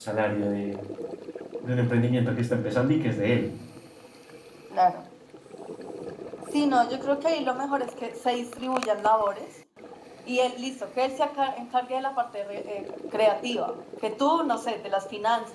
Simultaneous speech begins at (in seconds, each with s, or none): none